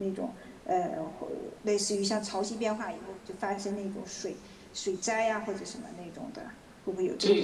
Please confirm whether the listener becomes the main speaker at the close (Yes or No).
Yes